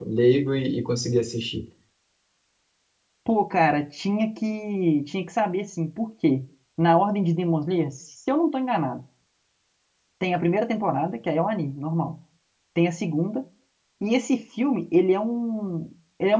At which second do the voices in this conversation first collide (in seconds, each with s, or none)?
none